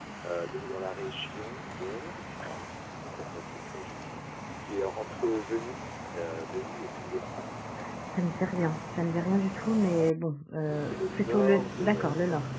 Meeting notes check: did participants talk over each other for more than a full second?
Yes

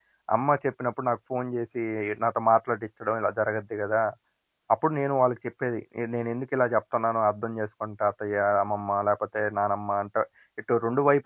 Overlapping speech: No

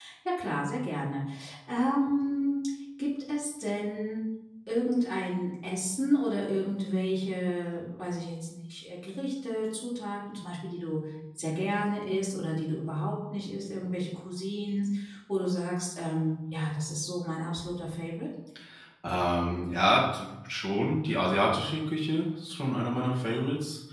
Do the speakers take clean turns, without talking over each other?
Yes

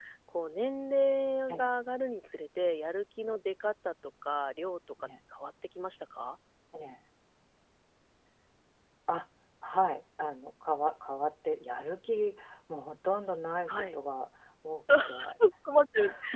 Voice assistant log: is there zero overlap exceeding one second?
Yes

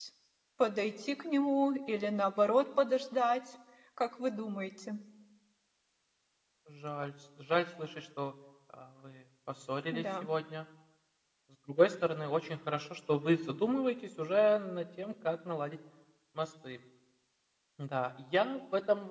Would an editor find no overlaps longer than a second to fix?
Yes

